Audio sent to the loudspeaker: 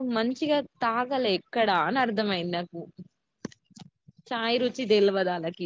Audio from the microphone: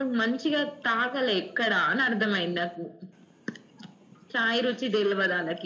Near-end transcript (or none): none